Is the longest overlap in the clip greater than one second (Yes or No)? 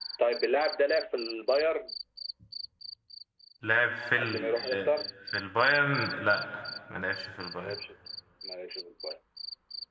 No